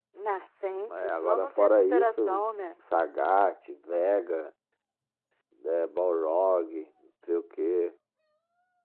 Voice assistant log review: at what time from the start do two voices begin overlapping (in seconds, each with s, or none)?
0.9 s